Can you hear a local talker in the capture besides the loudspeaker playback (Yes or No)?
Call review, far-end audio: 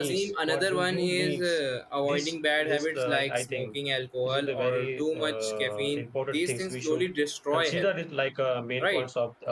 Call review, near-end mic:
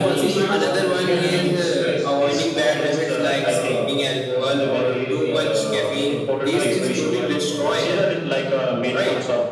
Yes